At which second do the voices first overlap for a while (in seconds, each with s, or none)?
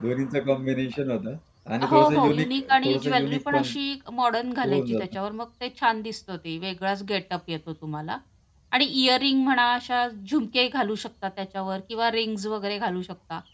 1.9 s